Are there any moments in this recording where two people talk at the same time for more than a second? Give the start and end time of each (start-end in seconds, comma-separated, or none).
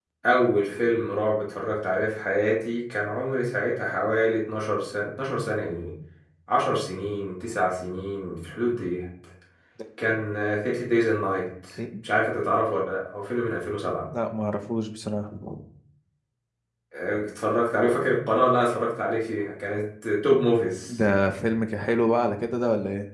none